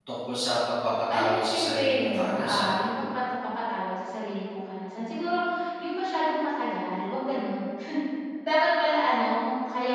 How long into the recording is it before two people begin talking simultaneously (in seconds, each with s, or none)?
1.1 s